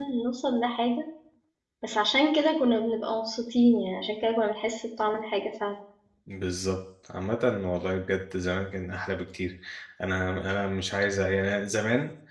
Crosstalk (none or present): none